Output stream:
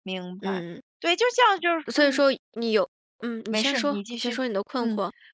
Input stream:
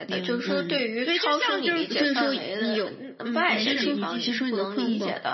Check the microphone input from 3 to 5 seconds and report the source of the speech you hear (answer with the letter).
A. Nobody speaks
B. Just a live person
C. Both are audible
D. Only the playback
C